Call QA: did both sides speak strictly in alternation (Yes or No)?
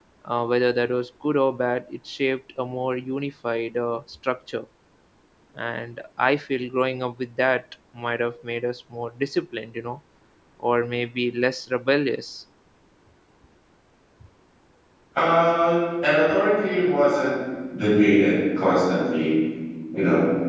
Yes